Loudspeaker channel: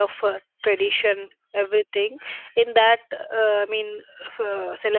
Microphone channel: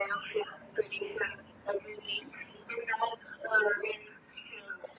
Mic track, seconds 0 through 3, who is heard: echo only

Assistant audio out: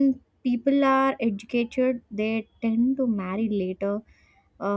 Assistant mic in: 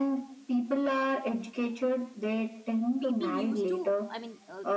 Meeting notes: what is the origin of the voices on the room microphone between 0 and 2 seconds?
echo only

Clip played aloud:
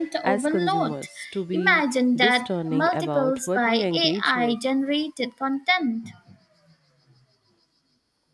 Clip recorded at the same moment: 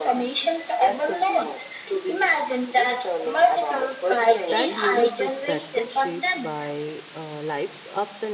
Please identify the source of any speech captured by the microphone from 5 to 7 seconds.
both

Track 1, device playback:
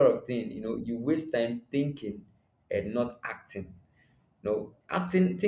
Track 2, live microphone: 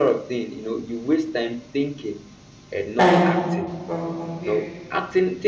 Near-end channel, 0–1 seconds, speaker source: echo only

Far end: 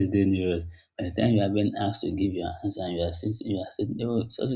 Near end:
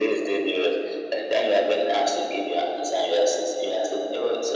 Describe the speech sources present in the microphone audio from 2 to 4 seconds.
echo only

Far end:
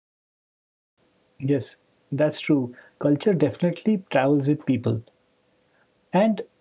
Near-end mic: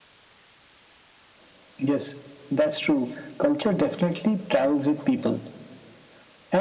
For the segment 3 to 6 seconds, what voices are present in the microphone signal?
echo only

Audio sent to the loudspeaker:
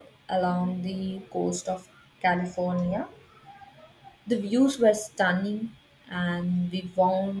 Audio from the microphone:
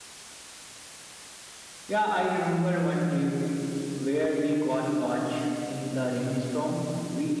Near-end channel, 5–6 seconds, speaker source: user only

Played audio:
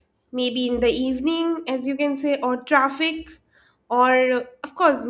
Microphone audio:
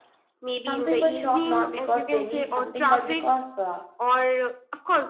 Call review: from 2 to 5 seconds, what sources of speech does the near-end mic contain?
both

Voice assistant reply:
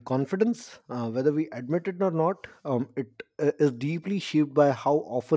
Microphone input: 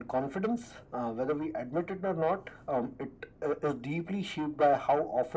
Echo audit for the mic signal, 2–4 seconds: echo only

